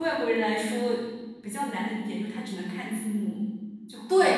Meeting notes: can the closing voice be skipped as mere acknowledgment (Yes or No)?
No